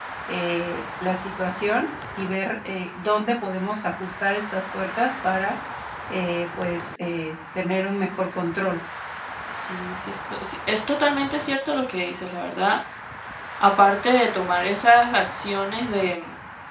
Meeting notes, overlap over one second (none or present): none